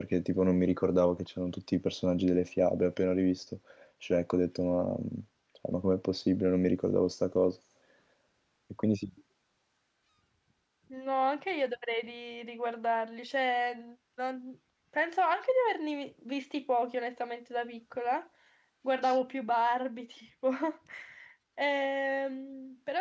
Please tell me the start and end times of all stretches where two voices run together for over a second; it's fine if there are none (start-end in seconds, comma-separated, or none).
none